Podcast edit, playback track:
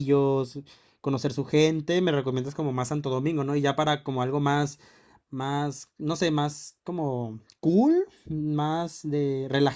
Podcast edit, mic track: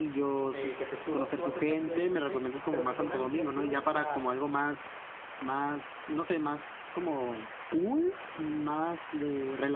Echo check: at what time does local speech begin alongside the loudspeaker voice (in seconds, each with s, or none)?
0.5 s